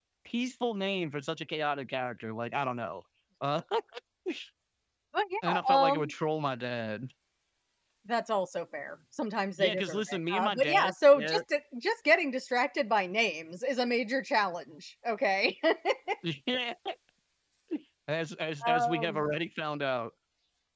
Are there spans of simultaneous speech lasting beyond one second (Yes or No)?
Yes